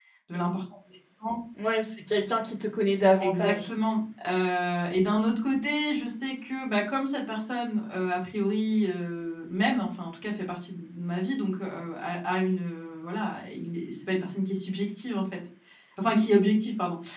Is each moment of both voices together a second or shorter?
Yes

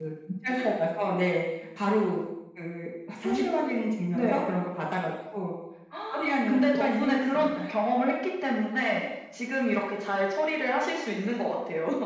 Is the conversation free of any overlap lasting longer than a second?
No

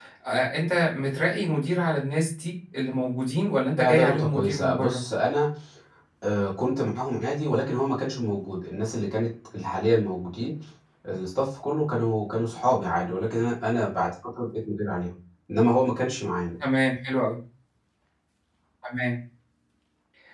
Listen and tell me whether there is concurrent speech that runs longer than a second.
Yes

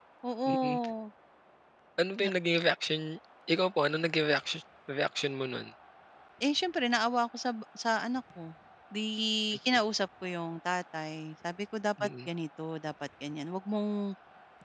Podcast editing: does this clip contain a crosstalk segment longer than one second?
No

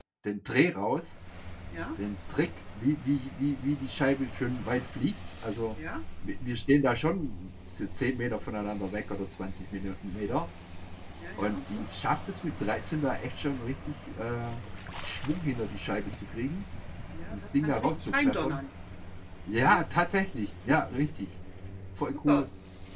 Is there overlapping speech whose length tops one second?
Yes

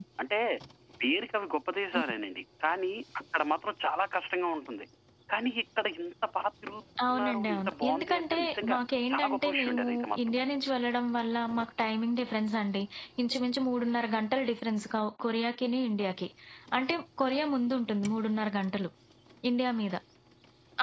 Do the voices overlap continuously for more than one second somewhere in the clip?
Yes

